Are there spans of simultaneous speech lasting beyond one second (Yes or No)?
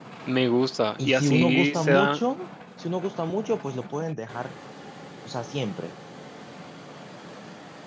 Yes